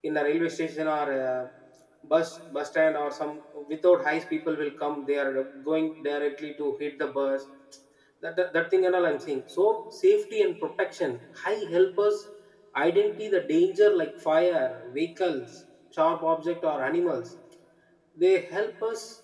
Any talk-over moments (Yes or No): No